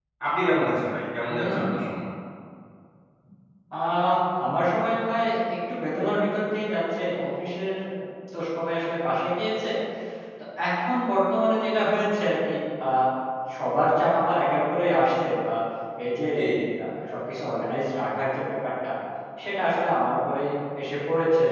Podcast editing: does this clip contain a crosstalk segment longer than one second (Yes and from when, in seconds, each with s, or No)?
No